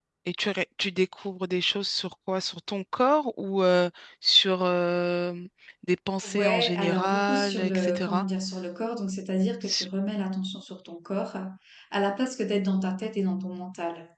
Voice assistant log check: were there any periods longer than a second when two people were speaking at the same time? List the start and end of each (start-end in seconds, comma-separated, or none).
6.2-8.2